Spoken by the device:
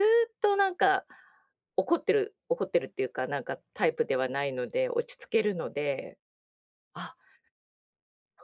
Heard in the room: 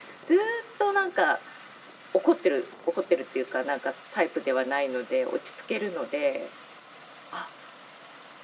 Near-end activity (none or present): none